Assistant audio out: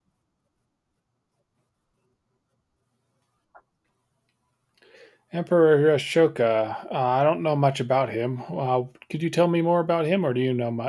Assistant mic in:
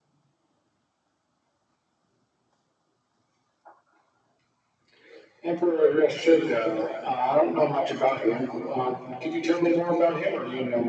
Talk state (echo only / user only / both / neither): echo only